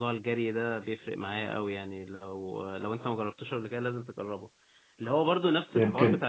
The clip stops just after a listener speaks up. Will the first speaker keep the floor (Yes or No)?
Yes